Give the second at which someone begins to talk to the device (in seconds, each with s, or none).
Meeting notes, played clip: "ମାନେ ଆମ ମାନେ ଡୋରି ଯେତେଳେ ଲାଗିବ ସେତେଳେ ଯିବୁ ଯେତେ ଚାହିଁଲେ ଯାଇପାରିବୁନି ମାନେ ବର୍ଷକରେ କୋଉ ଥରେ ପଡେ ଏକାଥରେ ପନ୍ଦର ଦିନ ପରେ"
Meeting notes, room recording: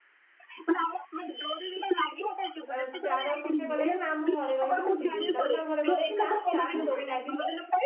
2.7 s